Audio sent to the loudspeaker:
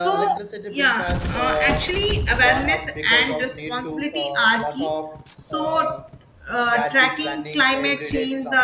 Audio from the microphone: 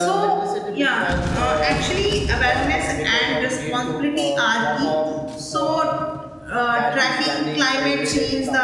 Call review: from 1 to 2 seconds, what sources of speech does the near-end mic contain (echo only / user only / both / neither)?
echo only